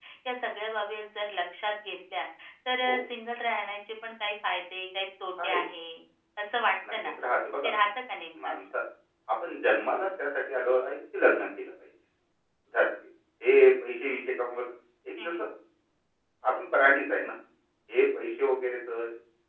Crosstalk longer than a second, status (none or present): none